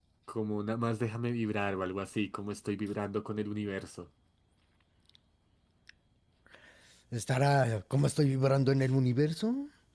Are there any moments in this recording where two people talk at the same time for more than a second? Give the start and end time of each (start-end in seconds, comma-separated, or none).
none